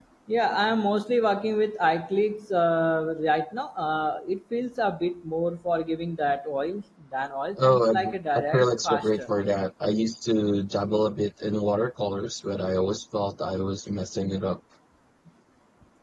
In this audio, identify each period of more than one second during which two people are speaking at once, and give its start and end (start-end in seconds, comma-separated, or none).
7.6-9.2